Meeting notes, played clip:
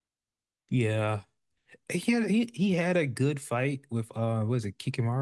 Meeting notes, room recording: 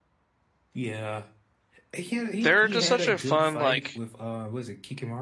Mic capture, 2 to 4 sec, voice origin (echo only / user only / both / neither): both